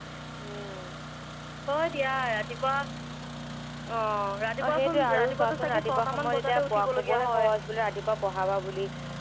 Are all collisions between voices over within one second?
No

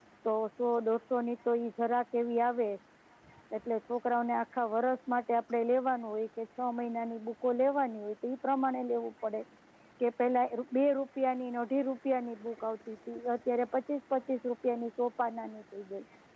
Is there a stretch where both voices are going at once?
No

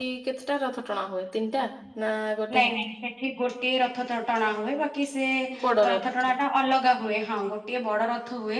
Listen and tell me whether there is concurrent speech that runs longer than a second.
No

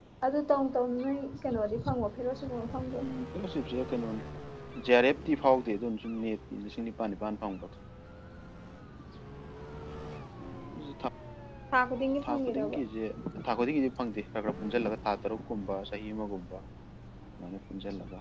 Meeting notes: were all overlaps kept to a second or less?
Yes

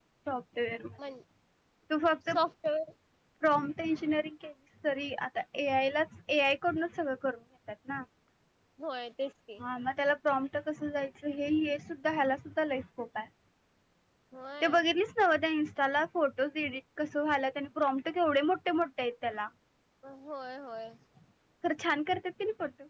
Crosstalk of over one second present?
No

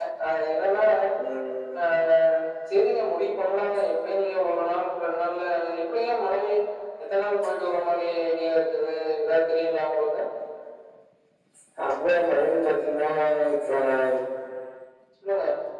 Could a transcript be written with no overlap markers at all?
Yes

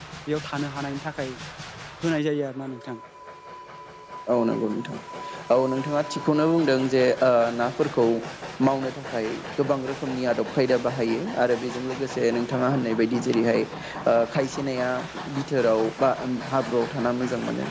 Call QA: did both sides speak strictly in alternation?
Yes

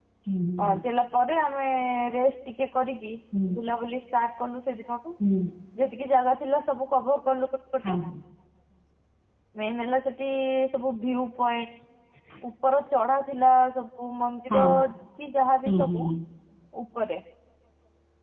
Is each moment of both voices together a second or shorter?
Yes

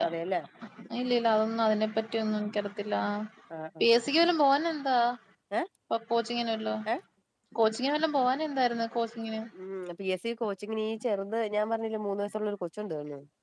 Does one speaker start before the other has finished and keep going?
No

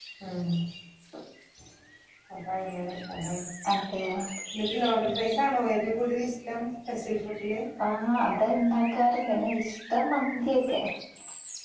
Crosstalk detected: No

